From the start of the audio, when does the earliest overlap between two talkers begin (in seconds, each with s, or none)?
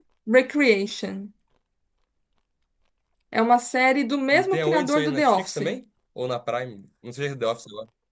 4.3 s